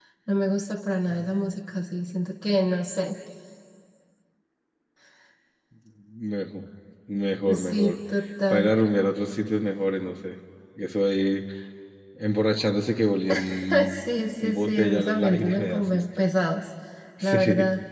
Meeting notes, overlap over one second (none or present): present